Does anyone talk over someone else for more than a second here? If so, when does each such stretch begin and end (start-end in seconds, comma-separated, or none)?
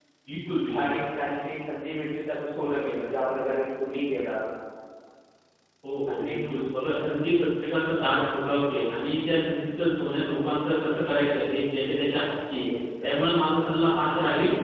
none